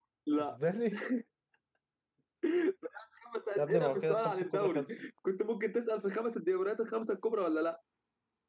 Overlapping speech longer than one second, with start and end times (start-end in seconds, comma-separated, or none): 3.6-4.8